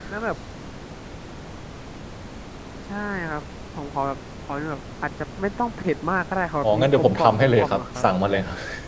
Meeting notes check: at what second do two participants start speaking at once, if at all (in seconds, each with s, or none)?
6.6 s